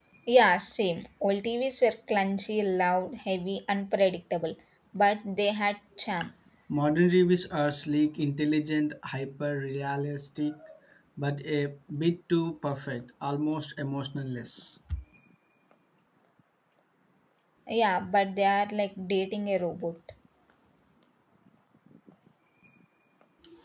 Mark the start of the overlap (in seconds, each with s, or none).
none